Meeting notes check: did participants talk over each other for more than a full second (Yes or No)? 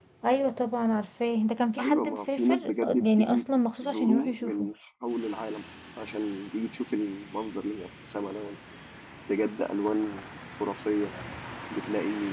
Yes